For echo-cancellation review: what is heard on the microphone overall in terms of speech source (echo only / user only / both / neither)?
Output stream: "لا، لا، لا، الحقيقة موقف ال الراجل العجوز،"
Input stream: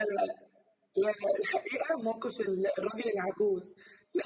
echo only